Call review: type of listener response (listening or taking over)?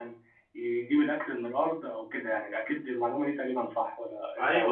taking over